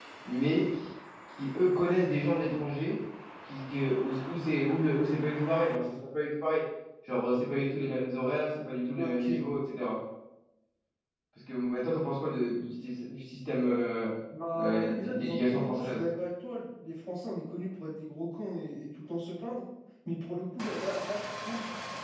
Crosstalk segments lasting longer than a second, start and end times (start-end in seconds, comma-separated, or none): 14.6-16.0